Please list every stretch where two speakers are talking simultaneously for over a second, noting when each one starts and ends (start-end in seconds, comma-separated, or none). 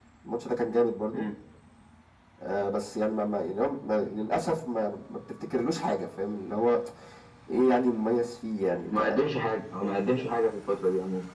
none